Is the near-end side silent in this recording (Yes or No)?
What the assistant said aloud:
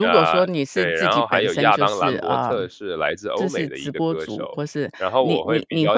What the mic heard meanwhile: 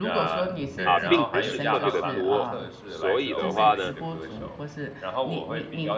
No